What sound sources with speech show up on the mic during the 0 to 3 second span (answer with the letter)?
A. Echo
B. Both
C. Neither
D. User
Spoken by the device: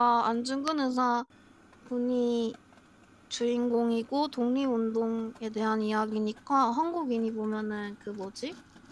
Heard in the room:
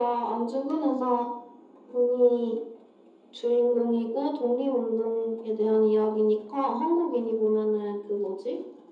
A